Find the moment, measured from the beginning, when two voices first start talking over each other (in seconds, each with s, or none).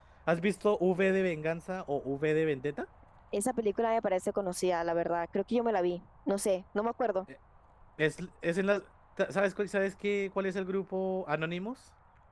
none